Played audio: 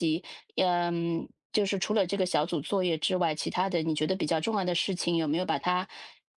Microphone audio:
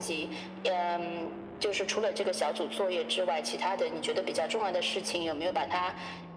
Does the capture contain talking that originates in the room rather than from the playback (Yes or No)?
No